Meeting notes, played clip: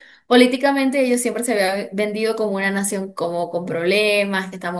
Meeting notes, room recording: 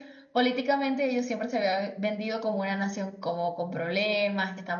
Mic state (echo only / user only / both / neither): echo only